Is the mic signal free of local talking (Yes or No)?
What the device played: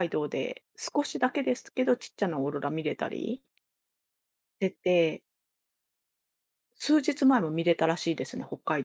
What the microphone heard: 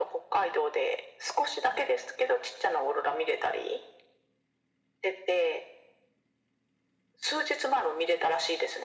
Yes